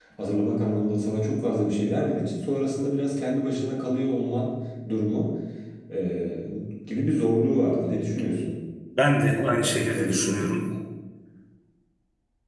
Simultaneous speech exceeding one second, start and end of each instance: 9.0-10.5

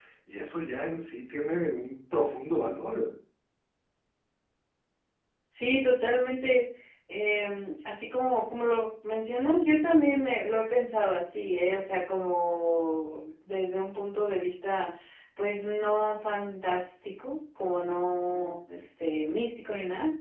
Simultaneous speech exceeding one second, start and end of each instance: none

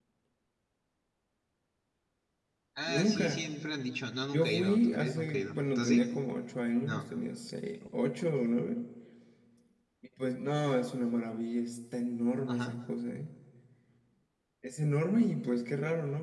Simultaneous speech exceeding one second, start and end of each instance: 4.3-6.1

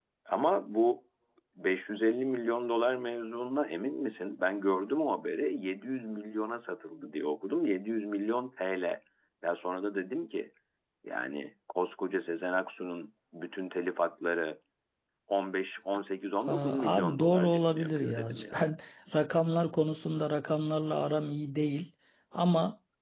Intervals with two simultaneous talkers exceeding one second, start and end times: 16.4-18.7

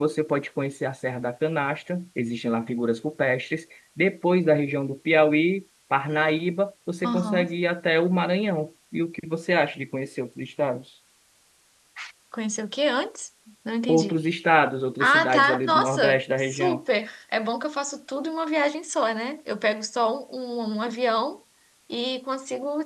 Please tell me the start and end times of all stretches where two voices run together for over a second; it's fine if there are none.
15.0-16.8

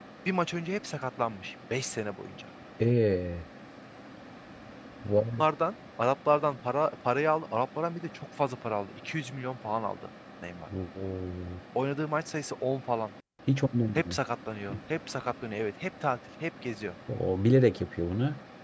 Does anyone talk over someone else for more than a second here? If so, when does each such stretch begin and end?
none

